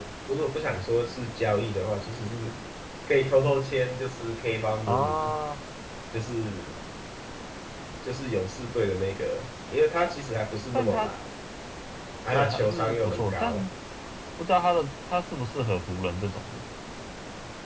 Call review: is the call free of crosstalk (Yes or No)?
No